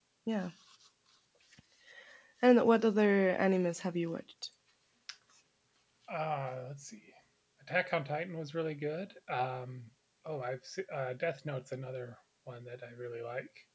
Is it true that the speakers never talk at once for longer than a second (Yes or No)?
Yes